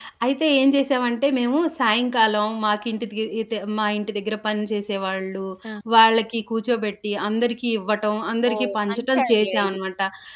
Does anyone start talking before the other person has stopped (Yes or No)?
Yes